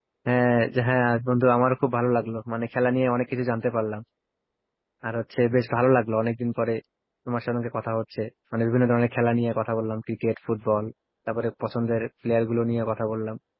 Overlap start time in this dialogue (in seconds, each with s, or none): none